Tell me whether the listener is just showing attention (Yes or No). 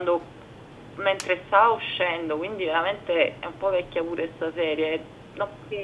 Yes